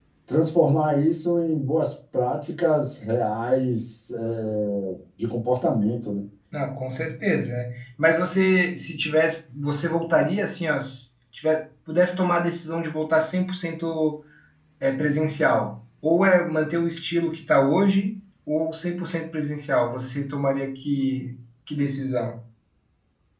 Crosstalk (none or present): none